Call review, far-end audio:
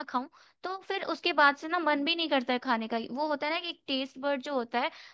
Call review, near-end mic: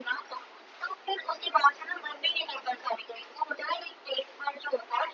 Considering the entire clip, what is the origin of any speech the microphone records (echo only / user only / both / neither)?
echo only